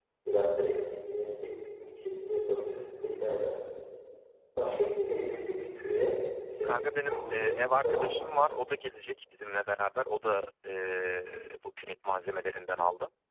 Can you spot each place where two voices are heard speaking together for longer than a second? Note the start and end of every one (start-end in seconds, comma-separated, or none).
6.7-8.2